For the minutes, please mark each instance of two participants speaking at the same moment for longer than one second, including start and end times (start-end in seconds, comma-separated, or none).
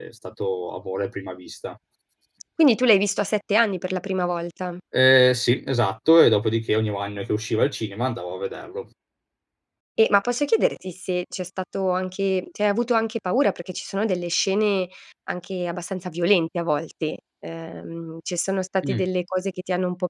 none